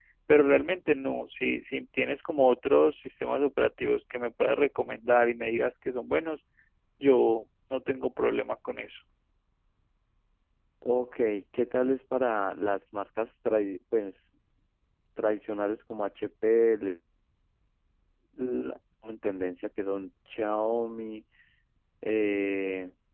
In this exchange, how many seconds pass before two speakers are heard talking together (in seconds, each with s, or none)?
none